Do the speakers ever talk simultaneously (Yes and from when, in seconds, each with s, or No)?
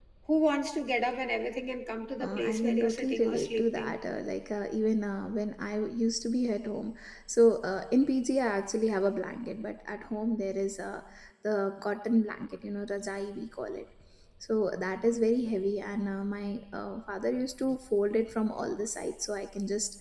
Yes, from 2.2 s